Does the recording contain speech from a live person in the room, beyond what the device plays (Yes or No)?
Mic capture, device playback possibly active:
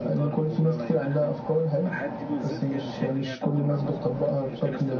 Yes